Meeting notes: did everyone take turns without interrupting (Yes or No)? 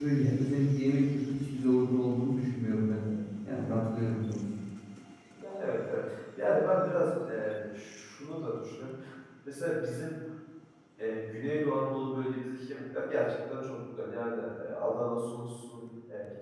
Yes